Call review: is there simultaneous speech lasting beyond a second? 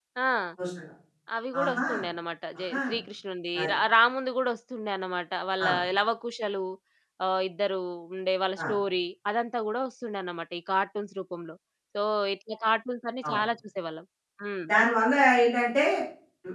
No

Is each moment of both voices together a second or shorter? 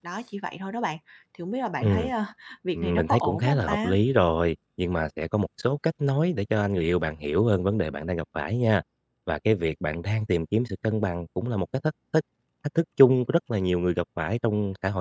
No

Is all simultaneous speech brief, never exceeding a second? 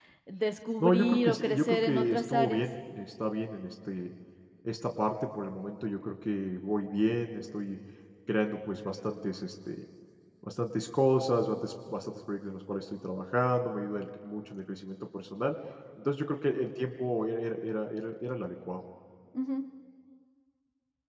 No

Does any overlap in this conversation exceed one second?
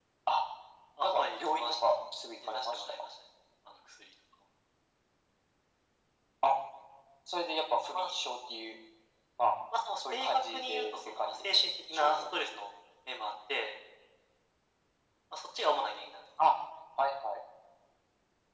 Yes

